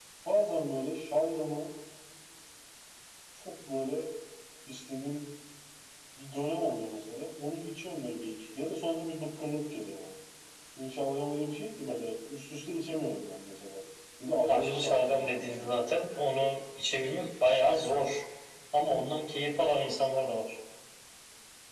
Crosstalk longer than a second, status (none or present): present